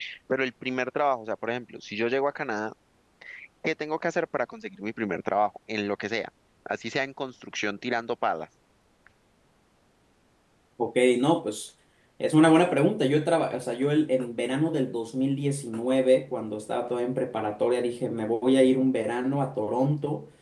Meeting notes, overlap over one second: none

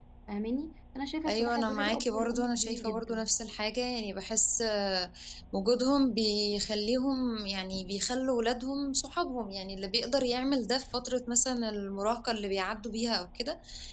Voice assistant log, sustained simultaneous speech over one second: present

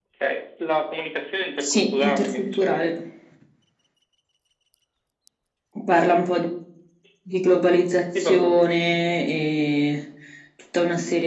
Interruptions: present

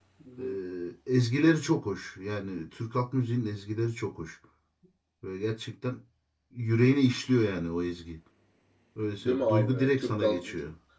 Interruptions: present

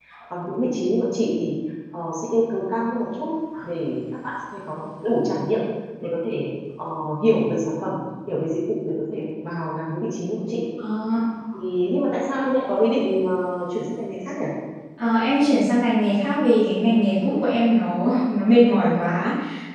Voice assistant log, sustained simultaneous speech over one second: none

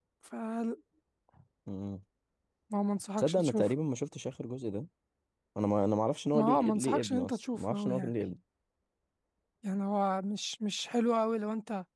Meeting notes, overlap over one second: present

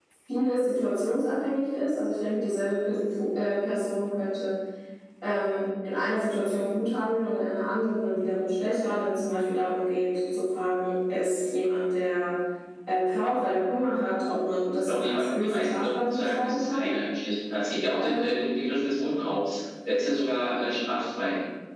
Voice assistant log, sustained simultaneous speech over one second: present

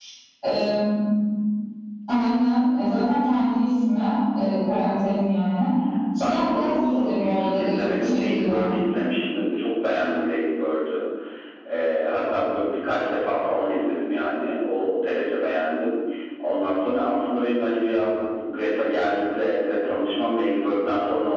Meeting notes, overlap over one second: present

